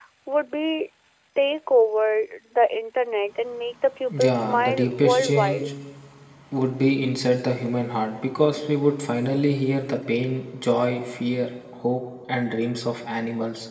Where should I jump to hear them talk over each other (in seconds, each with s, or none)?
4.1 s